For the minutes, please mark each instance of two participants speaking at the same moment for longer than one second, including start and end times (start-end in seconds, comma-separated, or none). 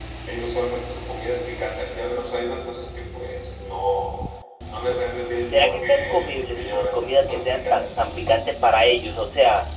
5.5-7.8